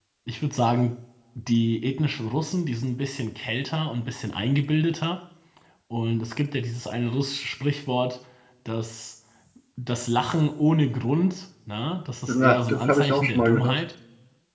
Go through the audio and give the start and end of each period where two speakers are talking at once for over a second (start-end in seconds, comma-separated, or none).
12.3-13.8